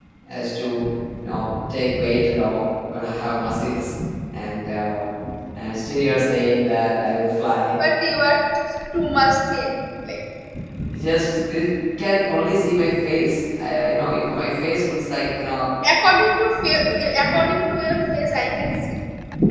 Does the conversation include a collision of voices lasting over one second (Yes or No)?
No